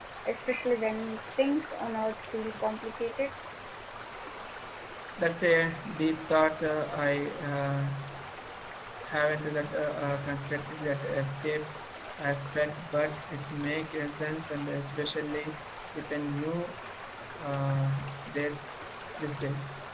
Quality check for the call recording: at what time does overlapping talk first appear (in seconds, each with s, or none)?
none